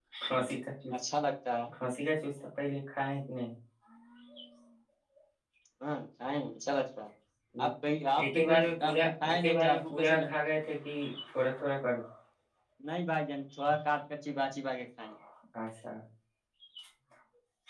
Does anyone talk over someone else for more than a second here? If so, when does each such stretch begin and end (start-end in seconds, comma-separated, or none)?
8.2-10.2